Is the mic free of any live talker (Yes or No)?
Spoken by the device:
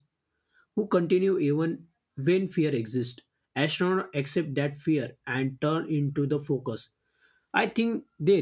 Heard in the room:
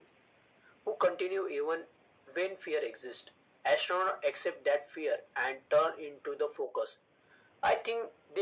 Yes